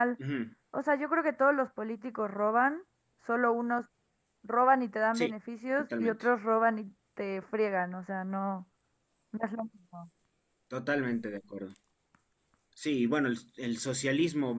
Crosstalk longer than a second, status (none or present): none